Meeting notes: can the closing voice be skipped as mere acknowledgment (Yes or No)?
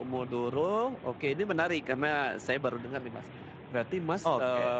Yes